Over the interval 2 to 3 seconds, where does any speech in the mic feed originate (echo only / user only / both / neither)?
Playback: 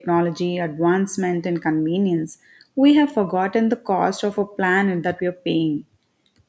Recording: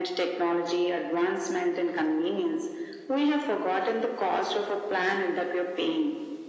echo only